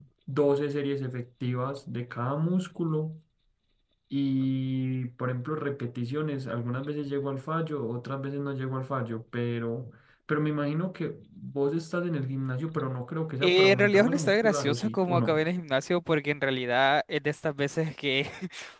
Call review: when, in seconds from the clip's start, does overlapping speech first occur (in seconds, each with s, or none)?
13.4 s